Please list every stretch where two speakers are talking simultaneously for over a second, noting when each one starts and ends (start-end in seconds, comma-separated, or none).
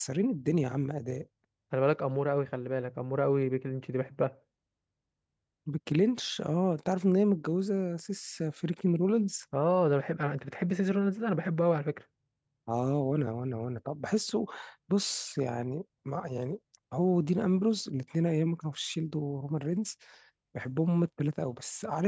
none